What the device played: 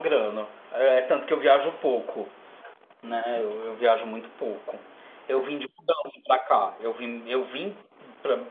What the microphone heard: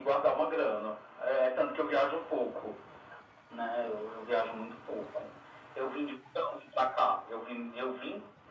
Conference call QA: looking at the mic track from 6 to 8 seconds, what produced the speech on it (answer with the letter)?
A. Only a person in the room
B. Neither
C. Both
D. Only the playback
D